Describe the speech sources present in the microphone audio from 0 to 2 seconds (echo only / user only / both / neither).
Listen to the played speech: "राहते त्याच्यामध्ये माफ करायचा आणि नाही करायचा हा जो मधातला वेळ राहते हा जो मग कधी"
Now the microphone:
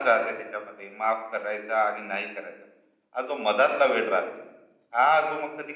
echo only